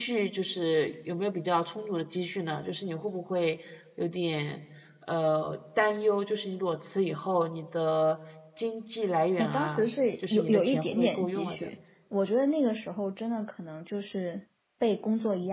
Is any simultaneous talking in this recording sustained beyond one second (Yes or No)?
Yes